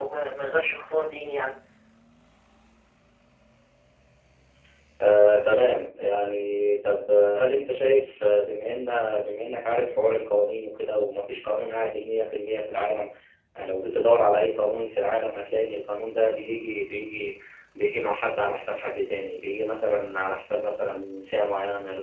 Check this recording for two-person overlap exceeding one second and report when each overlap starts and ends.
none

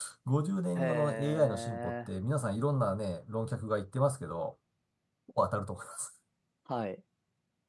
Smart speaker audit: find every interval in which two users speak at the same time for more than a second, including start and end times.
0.8-2.1

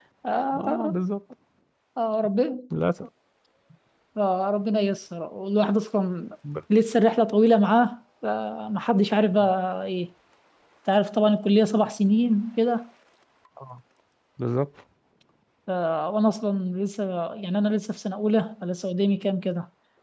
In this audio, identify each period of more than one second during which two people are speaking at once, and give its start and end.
none

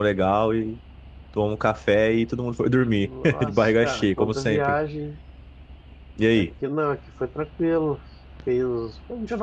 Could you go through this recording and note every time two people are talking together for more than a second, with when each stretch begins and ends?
3.0-4.6

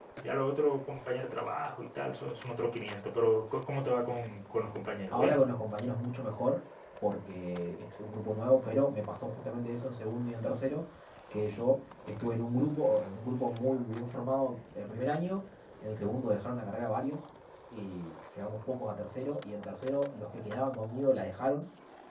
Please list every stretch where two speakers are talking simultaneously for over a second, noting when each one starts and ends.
none

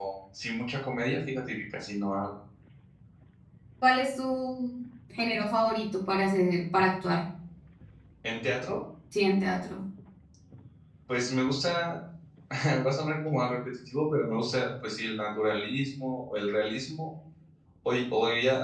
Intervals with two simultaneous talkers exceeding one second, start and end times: none

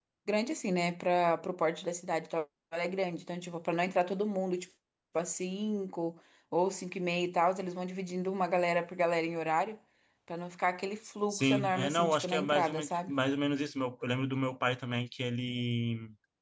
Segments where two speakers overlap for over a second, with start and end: 11.3-13.1

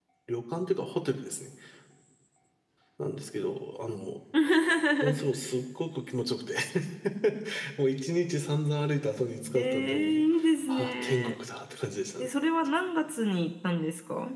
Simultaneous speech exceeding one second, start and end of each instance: 9.6-11.3

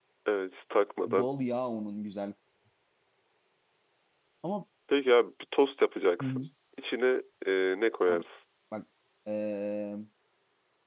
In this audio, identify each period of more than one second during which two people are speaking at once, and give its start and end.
none

